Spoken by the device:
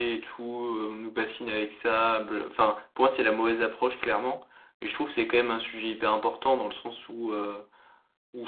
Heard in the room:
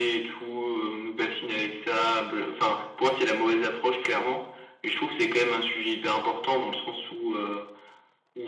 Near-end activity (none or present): none